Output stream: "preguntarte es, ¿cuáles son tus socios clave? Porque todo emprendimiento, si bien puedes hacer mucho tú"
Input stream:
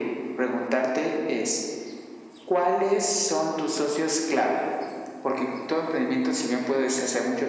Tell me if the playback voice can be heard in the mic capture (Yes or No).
Yes